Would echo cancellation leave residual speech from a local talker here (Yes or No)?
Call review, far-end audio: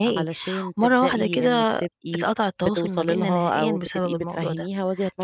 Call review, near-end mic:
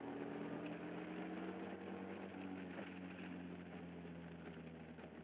No